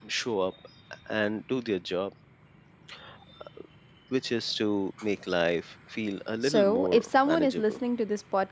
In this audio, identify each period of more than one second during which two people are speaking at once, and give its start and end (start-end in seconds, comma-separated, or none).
6.4-7.8